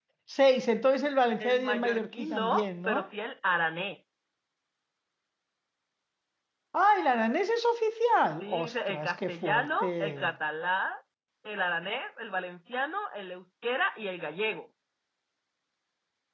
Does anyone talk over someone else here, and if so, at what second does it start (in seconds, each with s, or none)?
1.4 s